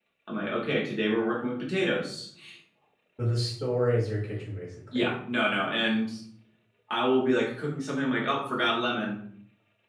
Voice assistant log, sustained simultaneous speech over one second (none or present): none